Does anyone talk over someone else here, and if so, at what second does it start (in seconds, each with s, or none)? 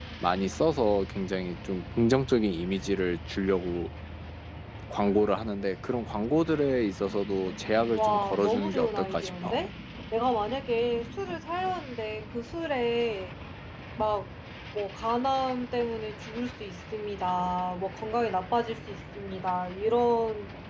8.0 s